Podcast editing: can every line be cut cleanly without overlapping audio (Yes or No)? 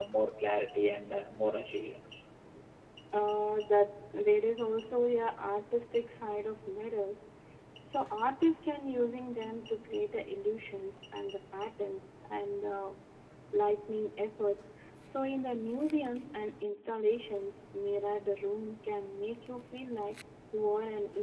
Yes